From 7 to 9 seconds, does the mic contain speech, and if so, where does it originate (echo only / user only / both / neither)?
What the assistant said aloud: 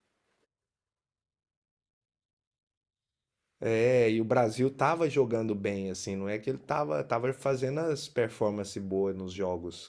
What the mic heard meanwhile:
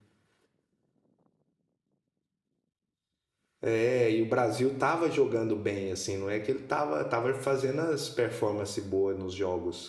echo only